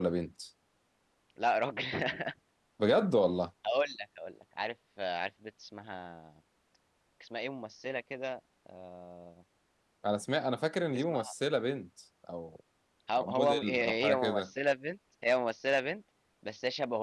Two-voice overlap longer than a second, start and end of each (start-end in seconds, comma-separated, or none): 13.2-14.5